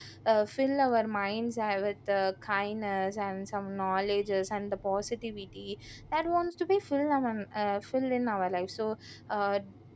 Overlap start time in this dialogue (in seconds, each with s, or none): none